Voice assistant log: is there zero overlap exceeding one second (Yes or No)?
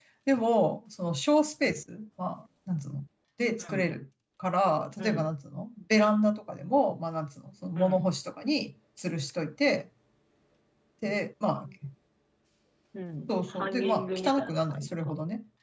No